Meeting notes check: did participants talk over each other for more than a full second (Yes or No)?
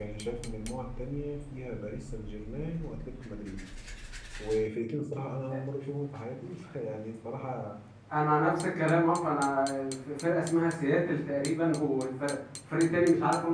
No